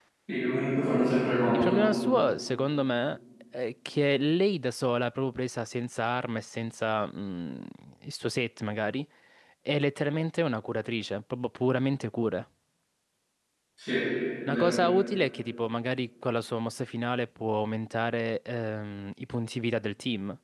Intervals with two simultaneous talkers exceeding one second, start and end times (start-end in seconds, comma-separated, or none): none